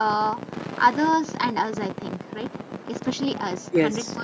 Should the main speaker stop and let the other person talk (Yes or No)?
No